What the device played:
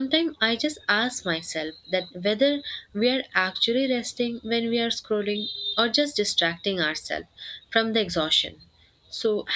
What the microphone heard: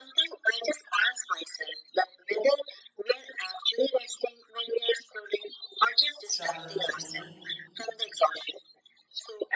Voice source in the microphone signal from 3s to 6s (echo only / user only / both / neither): echo only